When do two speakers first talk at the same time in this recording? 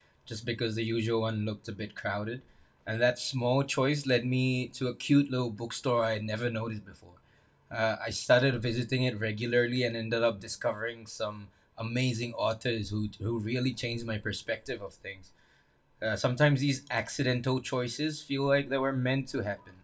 none

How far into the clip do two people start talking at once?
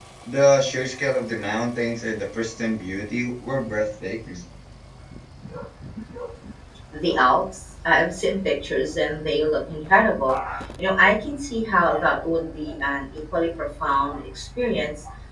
none

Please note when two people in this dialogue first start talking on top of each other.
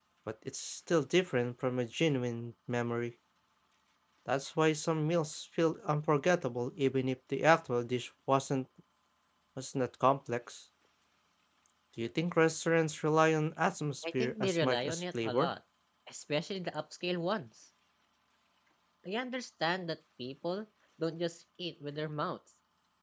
14 s

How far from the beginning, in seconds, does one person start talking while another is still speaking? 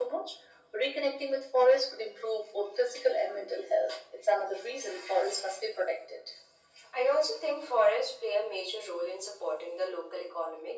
none

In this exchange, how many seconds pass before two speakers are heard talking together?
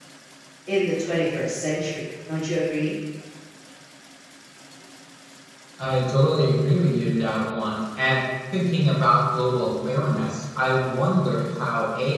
none

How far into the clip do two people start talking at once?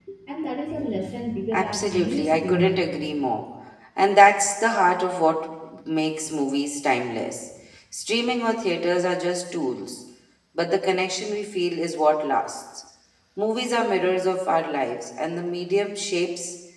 2 s

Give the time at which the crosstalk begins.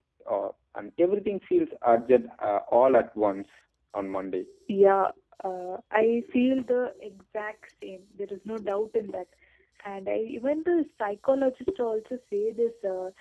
none

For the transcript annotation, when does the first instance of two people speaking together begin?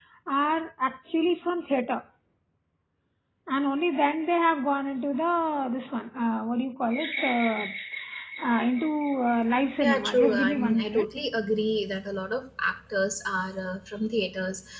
10 s

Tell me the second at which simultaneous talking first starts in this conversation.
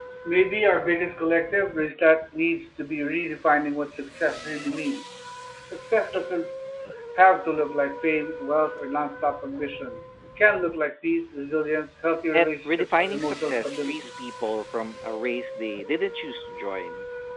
12 s

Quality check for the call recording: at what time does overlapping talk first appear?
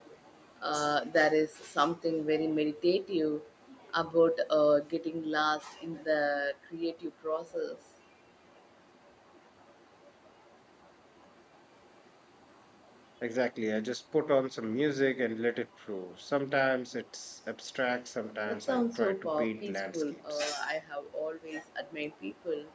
18 s

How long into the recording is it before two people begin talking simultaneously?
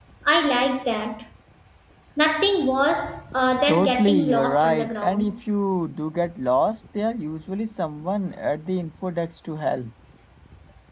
4 s

